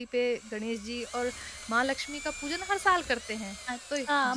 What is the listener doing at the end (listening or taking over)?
taking over